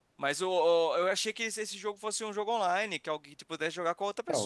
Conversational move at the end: taking over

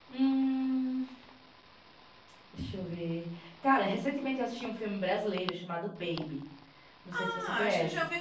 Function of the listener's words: taking over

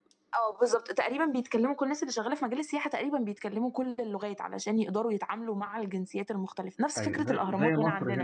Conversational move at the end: taking over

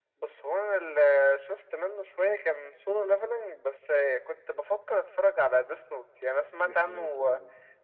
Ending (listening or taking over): listening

